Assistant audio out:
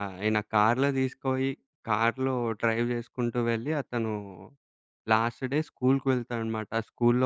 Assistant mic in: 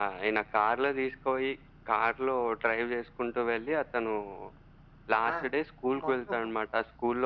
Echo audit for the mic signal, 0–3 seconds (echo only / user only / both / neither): echo only